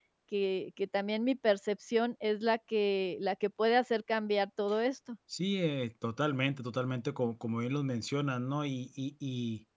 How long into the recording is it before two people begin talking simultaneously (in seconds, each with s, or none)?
none